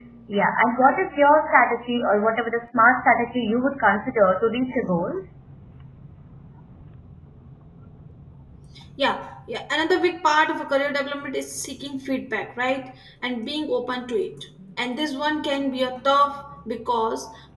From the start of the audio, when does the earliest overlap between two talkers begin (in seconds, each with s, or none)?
none